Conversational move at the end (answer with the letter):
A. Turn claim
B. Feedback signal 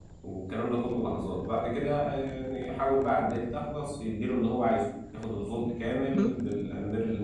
B